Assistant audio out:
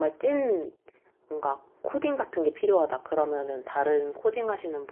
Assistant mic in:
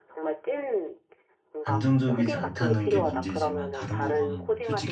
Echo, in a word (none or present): present